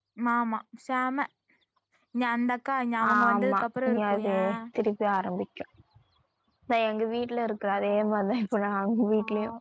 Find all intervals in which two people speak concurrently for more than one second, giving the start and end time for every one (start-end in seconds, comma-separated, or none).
3.1-4.4